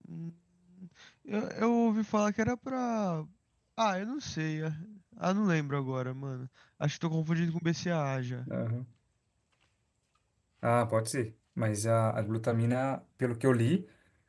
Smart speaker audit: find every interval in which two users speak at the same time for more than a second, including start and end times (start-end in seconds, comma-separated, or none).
none